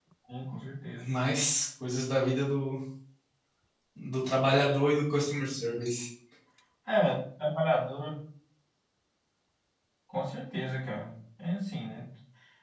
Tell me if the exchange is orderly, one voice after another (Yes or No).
Yes